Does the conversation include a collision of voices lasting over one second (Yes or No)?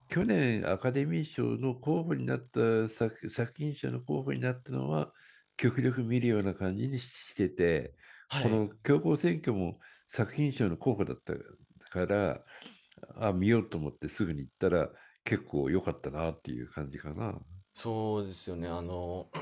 No